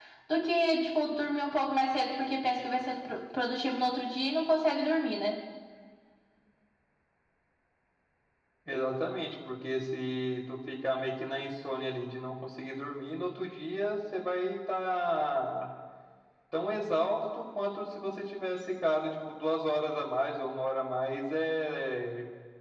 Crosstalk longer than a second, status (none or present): none